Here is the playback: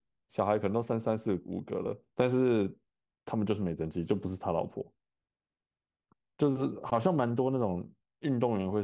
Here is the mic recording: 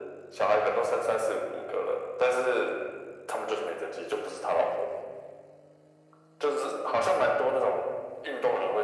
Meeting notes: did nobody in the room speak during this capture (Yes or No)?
Yes